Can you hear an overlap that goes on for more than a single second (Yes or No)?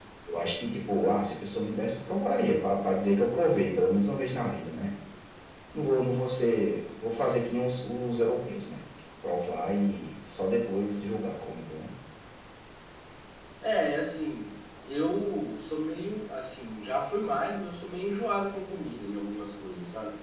No